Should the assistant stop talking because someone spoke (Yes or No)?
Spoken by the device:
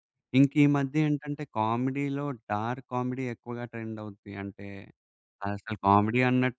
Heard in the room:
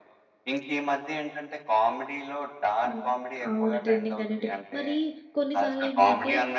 Yes